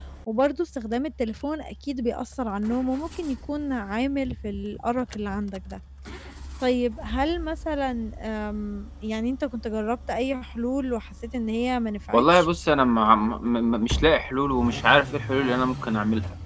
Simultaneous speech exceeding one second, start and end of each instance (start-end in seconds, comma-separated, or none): none